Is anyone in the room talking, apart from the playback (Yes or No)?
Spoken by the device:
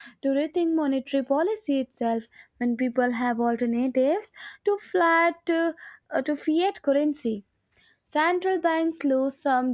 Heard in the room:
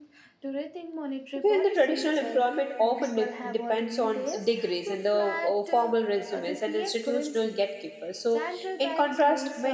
Yes